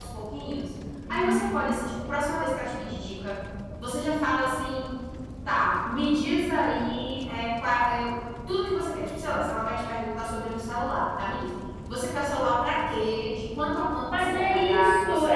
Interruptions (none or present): present